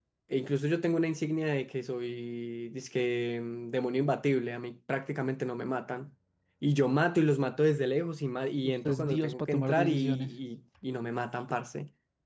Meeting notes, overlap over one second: present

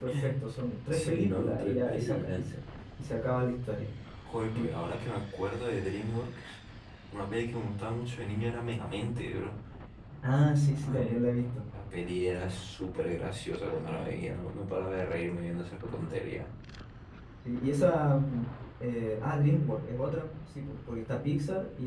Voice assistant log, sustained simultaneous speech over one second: present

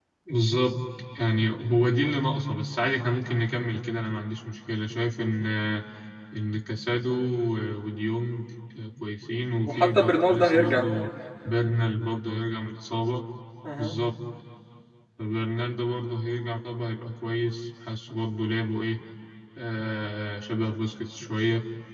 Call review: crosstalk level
present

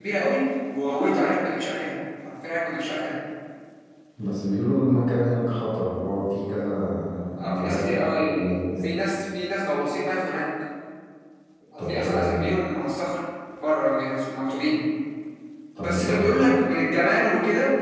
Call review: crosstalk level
present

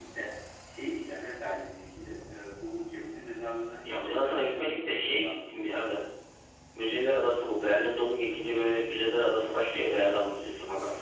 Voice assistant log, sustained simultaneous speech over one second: present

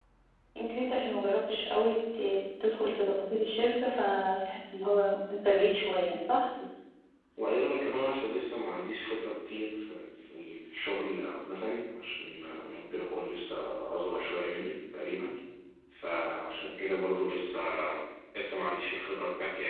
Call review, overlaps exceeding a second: none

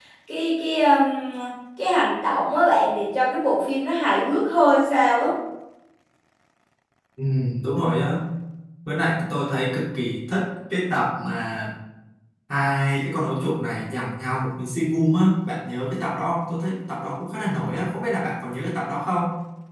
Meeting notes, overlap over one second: none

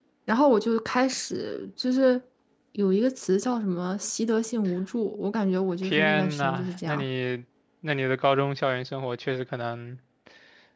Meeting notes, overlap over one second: present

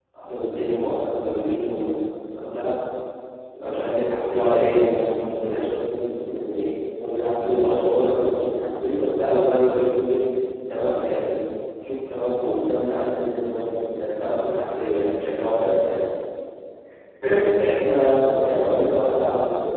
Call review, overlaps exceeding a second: present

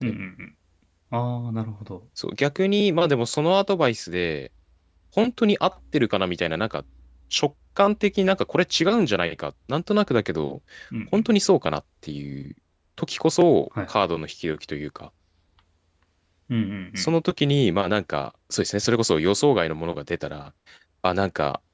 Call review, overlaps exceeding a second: none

